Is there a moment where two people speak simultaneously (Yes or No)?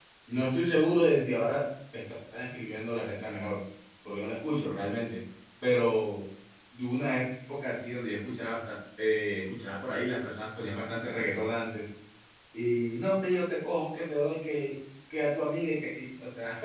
No